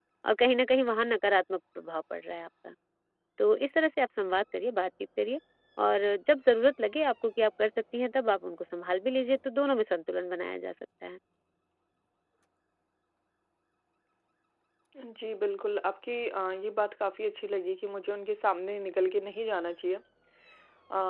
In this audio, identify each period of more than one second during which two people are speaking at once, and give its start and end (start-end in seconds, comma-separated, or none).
none